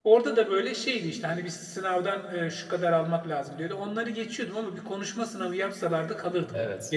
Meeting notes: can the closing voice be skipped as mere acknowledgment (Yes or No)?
No